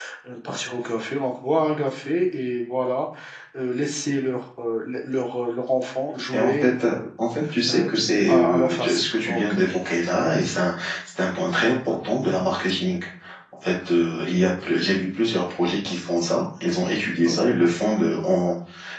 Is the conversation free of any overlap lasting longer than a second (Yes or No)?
No